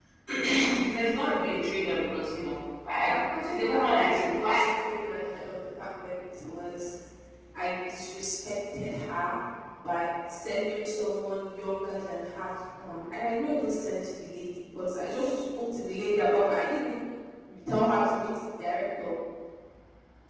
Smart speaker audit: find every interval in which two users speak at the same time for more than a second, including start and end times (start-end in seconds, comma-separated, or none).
3.1-4.7